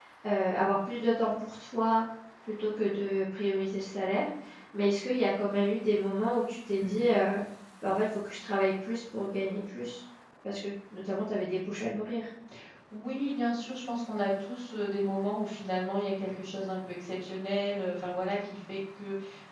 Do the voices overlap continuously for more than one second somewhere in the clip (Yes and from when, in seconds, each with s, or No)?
No